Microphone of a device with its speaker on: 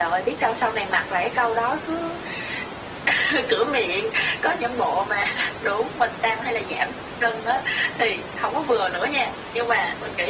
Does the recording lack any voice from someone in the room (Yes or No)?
Yes